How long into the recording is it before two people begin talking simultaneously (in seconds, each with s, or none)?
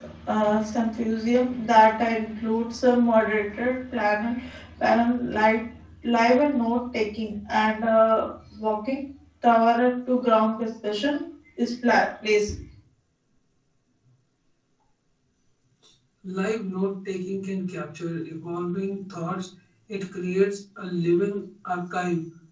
none